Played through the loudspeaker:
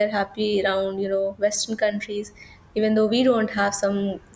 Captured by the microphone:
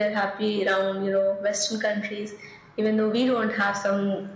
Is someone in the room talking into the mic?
No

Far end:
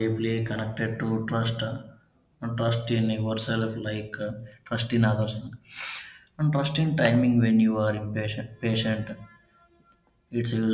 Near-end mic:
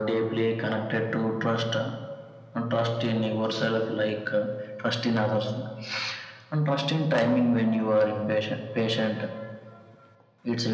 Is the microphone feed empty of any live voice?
Yes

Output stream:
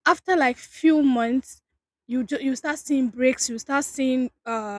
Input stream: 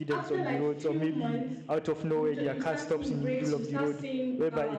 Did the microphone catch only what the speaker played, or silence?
No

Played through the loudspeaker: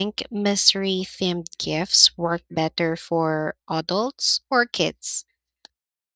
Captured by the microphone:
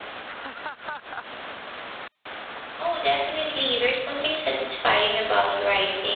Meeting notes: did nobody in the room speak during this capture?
No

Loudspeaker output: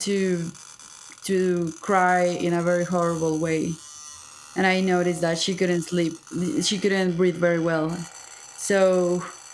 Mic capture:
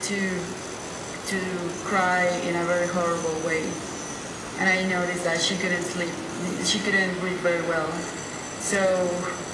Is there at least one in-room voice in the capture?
No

